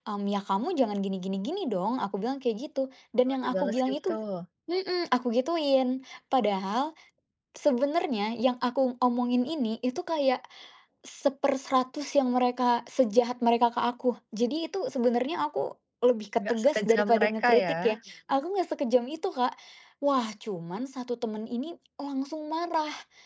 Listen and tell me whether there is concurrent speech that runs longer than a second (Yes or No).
Yes